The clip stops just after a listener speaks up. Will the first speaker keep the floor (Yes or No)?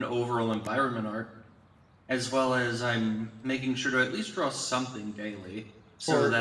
Yes